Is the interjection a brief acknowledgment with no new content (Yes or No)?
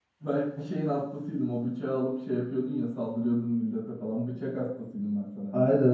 No